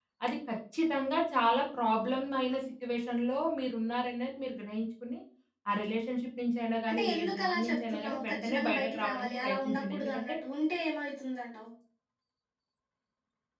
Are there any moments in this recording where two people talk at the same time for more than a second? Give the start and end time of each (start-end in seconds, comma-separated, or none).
6.9-10.3